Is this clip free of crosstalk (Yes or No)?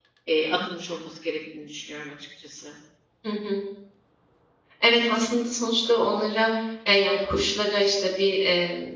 Yes